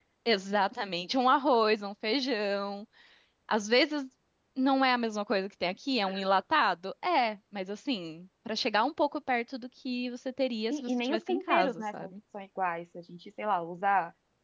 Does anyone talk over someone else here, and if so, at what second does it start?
10.7 s

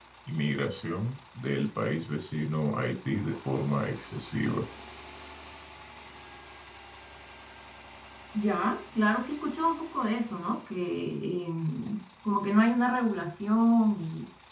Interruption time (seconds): none

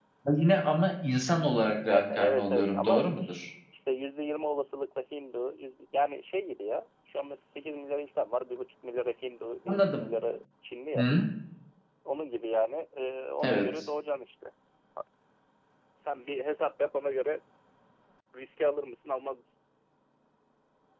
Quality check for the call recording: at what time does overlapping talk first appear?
1.9 s

